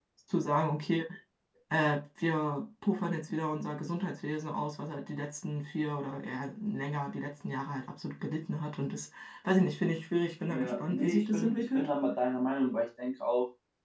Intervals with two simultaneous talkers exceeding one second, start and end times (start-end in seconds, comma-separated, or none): 10.5-11.9